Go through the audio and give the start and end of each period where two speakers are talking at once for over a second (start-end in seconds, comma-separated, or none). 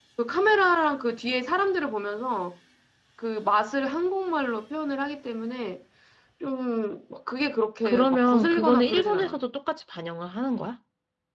7.8-9.4